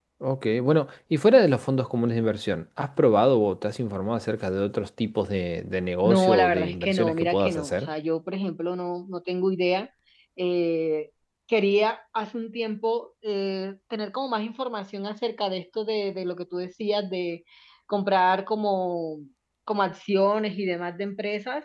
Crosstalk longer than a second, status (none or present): present